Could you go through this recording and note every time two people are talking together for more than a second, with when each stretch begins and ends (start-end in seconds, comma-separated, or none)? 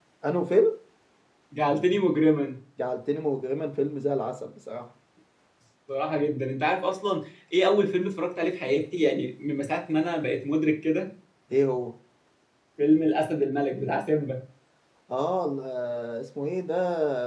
none